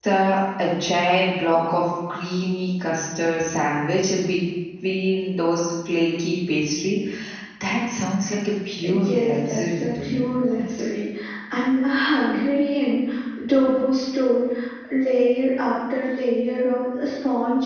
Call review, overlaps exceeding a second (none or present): present